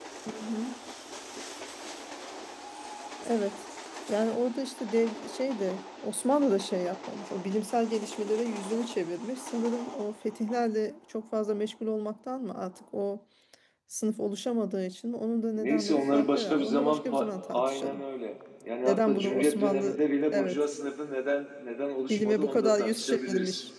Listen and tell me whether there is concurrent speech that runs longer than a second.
Yes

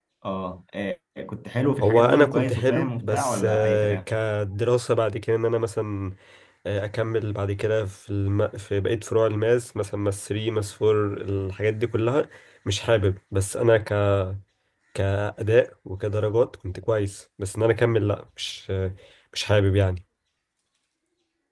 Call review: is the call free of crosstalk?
No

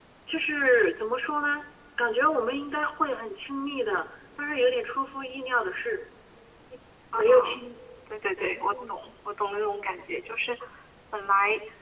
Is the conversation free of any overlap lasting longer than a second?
Yes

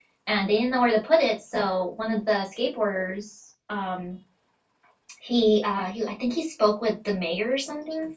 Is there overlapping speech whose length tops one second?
No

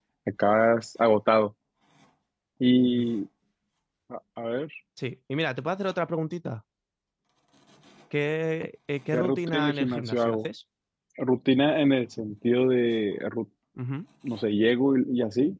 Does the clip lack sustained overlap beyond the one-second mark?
No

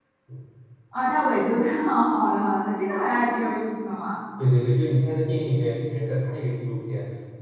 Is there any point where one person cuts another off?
No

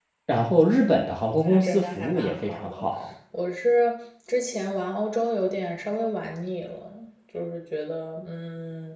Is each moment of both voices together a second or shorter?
No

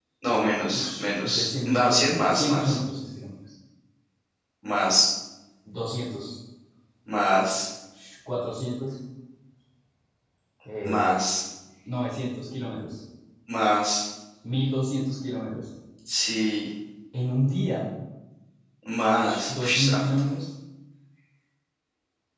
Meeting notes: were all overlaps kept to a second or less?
No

